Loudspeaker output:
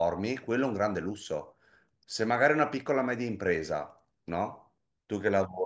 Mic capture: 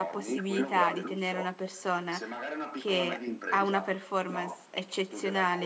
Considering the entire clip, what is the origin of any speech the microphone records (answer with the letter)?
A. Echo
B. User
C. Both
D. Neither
C